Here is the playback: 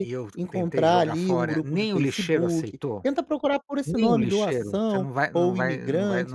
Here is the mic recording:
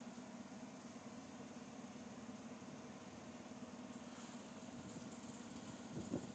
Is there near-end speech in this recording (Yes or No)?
No